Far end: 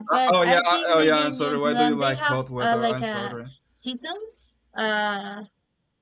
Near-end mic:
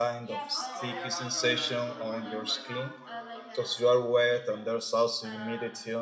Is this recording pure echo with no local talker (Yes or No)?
No